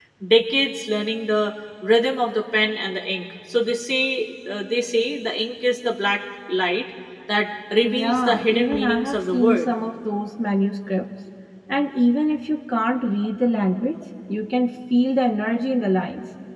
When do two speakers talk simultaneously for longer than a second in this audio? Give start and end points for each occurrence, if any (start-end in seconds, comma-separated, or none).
7.8-9.7